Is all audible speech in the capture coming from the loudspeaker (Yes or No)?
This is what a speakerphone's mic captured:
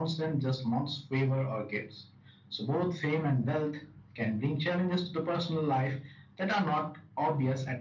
Yes